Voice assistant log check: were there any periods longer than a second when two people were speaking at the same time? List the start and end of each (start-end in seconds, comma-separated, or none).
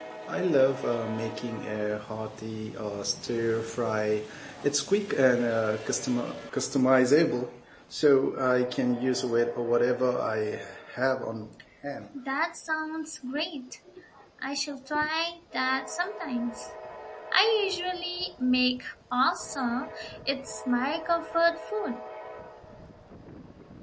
none